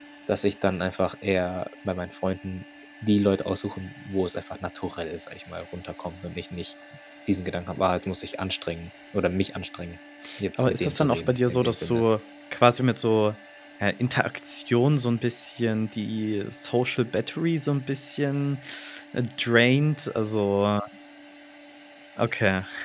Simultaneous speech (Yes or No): Yes